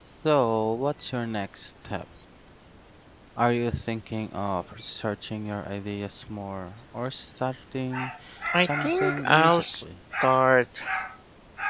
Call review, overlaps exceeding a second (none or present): present